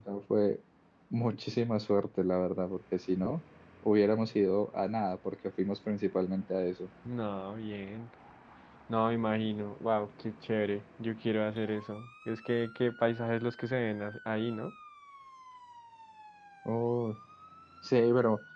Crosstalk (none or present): none